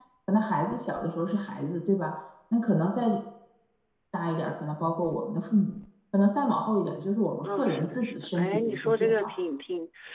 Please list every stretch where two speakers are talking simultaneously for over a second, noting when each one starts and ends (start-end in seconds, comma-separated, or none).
7.4-9.3